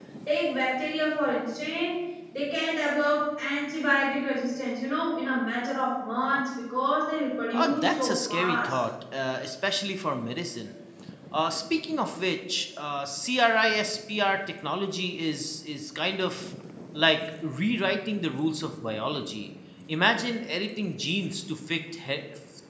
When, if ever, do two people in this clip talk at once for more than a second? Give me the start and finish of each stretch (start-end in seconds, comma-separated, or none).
7.5-8.8